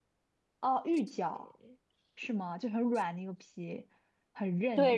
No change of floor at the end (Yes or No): No